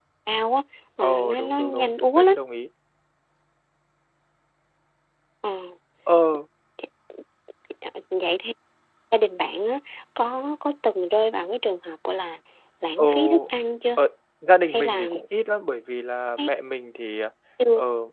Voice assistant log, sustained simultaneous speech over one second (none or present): present